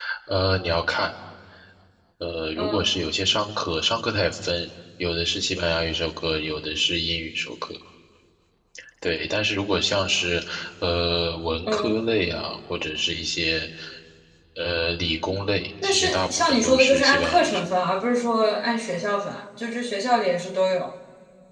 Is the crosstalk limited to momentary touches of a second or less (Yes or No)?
No